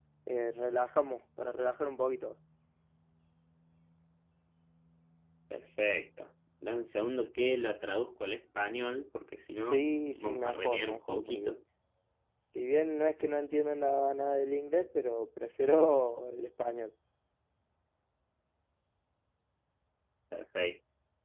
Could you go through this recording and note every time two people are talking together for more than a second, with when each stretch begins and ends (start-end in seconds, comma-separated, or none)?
9.6-11.6